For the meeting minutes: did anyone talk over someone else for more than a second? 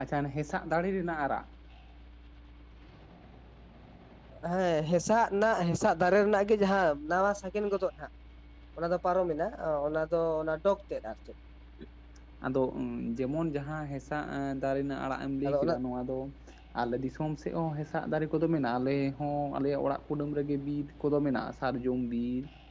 No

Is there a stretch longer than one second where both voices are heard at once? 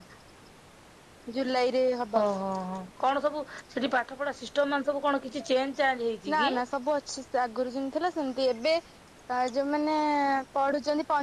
No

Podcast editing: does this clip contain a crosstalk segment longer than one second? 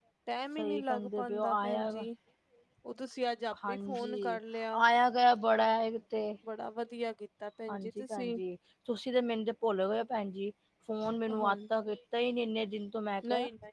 Yes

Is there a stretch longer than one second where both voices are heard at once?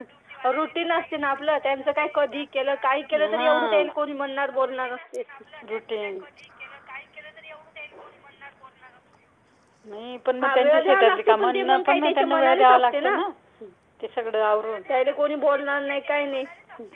Yes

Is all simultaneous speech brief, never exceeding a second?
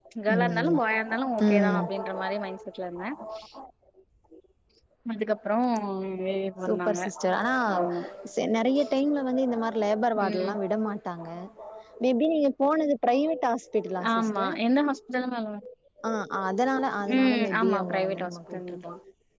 No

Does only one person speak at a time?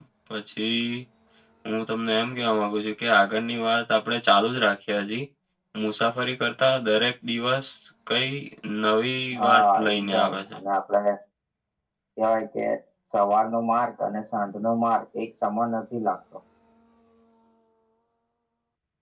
No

